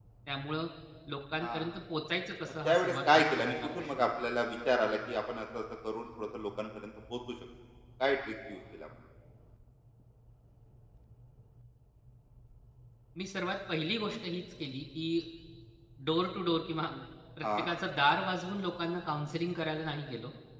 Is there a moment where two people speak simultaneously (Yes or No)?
Yes